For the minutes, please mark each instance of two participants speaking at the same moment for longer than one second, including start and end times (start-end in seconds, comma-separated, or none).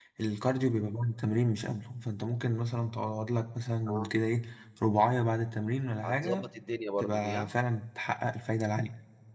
none